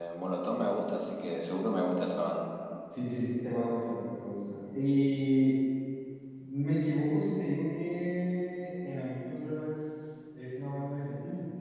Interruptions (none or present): none